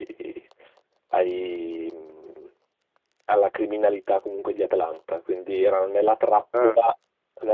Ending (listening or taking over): listening